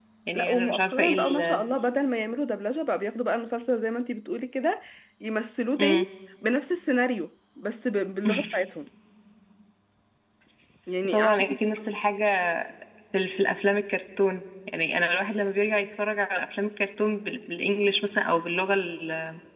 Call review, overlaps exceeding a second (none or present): present